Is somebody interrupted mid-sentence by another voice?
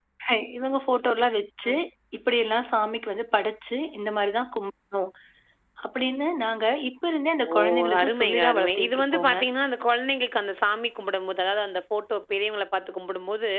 Yes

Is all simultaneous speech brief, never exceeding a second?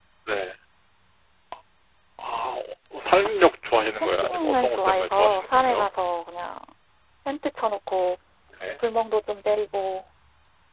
No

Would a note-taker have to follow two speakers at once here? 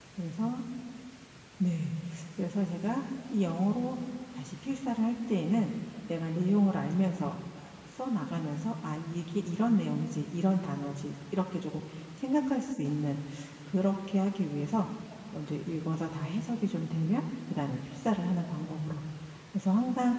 No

